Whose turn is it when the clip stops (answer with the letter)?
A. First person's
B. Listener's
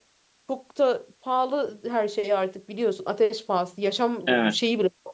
A